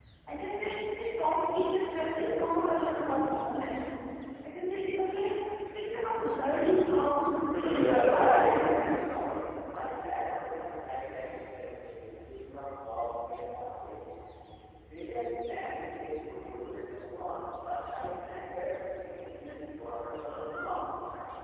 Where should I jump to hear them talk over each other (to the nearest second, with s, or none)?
7 s